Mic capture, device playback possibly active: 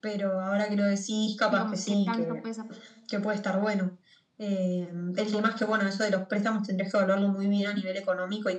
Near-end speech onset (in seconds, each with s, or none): 1.5 s